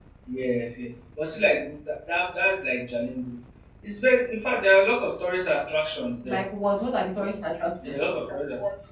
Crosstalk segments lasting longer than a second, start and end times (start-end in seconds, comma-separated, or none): none